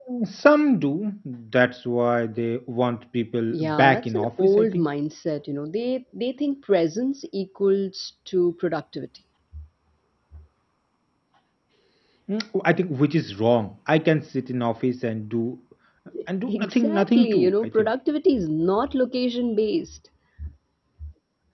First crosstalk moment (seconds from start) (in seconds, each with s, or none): 3.5 s